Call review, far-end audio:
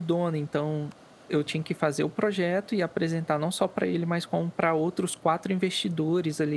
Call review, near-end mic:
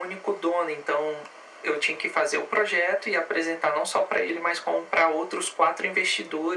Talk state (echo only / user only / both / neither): echo only